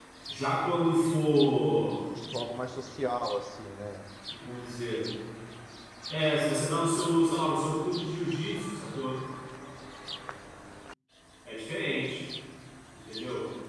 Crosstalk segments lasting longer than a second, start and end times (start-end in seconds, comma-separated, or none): none